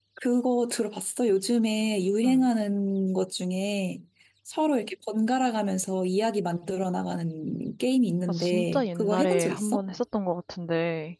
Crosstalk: present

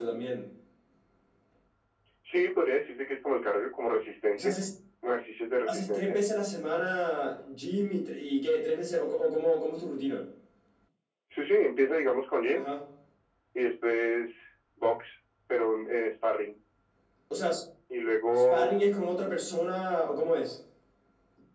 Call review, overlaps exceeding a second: none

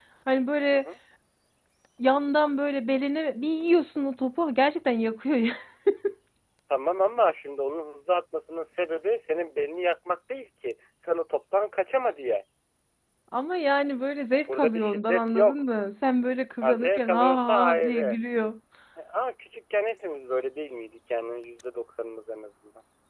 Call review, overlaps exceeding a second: present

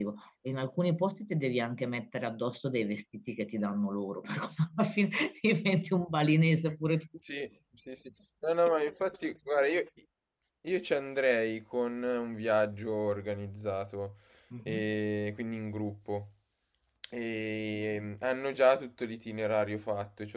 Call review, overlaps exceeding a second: none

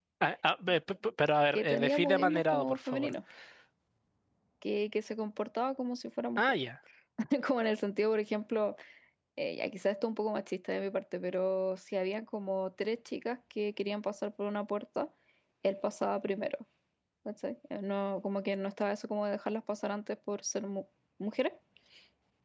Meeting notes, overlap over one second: present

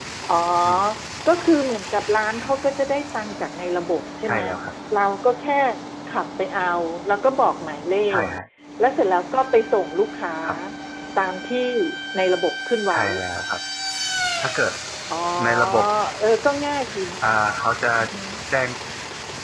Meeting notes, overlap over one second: none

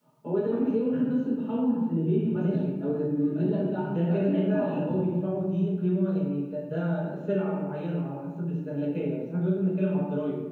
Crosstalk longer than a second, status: present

